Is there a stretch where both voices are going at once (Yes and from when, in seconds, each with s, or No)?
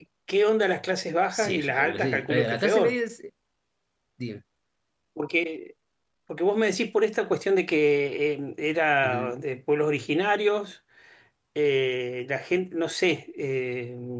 Yes, from 1.3 s